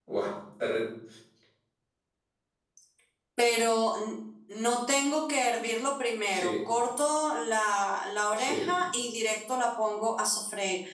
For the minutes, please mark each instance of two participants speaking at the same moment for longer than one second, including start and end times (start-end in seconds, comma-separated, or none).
none